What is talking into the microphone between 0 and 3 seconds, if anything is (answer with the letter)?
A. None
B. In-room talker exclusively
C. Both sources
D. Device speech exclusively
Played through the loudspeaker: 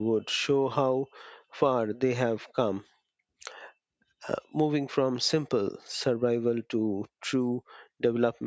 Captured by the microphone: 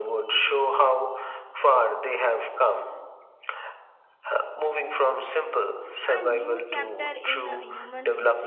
D